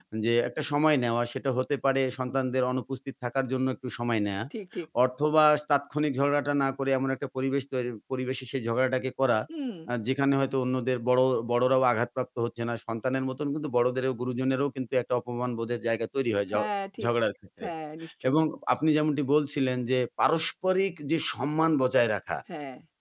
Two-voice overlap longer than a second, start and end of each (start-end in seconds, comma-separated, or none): none